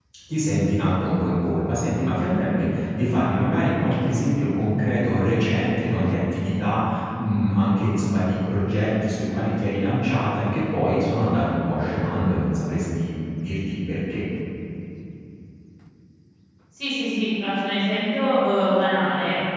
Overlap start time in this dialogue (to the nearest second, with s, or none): none